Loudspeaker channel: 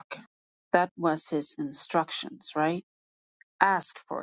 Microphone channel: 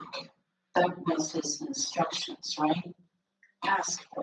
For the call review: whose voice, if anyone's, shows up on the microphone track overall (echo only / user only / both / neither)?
echo only